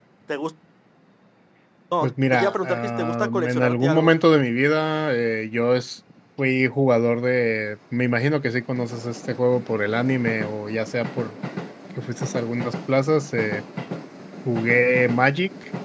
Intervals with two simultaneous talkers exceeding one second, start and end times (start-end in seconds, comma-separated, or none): 2.0-4.1